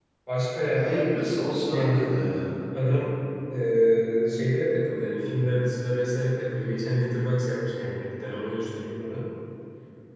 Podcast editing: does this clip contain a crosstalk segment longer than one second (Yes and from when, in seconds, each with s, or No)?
Yes, from 0.7 s